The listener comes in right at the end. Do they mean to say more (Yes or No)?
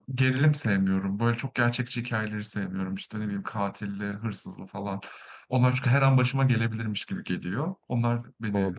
Yes